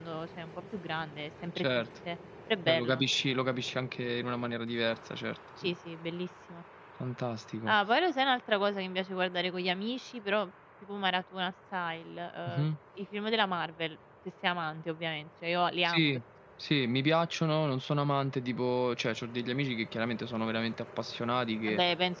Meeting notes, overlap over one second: none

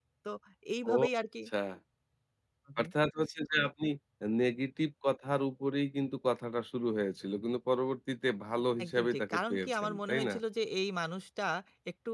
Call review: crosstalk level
present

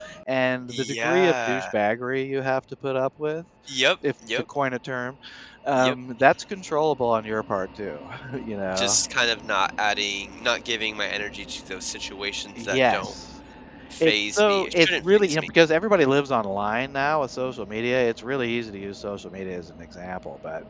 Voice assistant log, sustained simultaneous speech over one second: present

